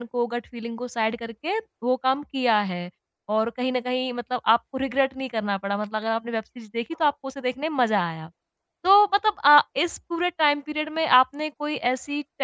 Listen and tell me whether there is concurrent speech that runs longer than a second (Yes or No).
No